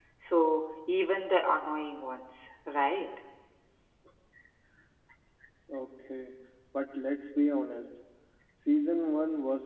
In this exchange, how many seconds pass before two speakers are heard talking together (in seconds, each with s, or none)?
none